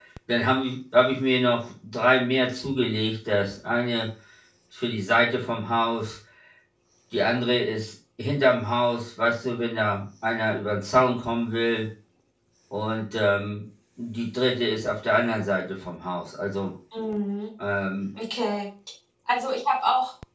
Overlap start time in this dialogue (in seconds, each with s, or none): none